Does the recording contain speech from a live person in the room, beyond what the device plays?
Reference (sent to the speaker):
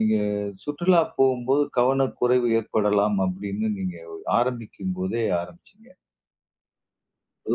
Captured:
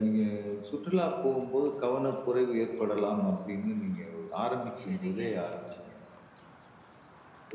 Yes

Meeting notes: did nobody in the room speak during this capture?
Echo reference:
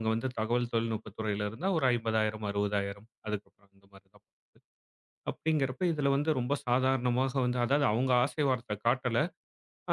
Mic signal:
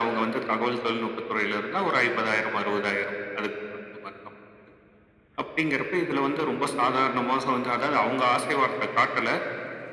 Yes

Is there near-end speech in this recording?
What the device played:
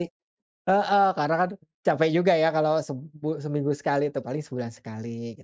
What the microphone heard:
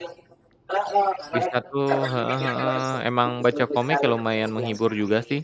Yes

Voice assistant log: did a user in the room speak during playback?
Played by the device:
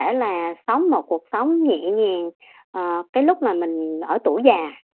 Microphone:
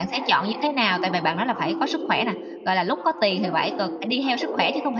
Yes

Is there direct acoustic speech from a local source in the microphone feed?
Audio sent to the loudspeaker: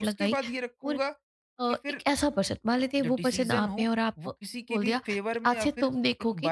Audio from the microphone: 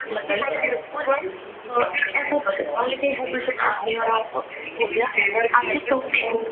Yes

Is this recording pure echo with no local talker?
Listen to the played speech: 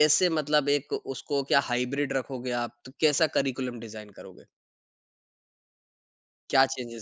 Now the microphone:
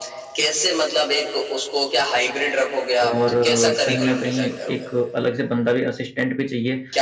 No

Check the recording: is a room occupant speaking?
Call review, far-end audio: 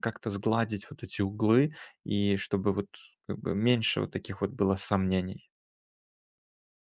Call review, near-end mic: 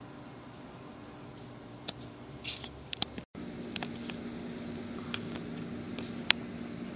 No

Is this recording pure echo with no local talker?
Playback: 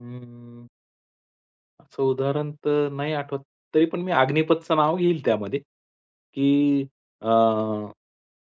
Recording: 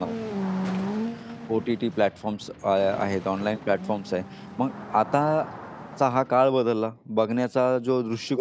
No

